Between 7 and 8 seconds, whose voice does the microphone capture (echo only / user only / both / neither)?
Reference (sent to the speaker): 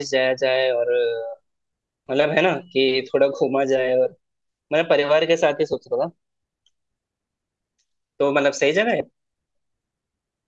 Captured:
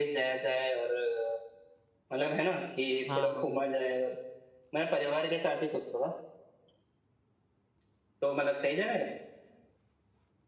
neither